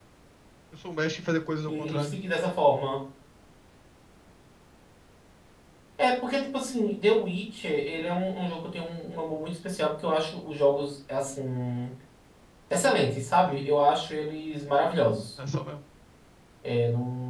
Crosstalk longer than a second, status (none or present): none